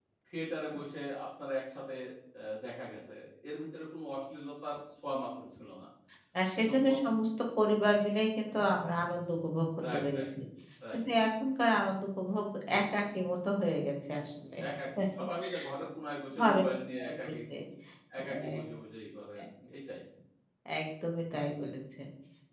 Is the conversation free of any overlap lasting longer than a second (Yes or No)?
Yes